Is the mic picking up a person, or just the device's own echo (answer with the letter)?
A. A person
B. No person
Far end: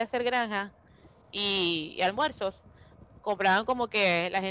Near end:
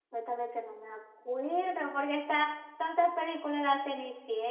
A